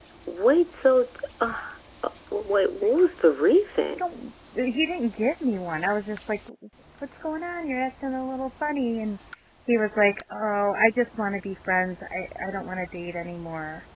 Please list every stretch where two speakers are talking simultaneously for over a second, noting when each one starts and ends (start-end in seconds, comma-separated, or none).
none